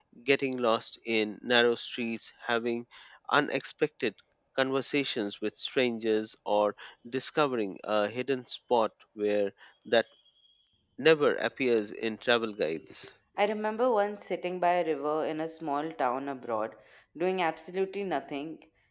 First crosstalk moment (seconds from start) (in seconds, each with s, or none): none